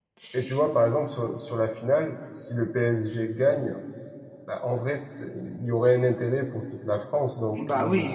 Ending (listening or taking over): taking over